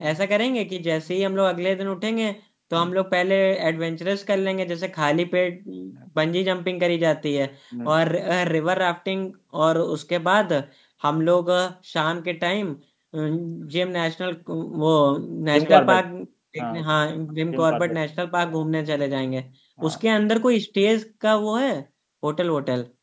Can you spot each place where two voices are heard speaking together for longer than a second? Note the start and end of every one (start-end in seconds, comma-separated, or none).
none